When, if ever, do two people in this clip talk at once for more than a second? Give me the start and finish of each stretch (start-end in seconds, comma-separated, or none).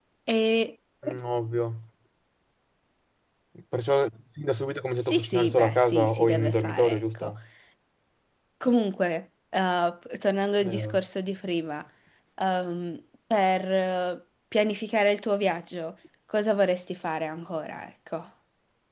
5.0-7.3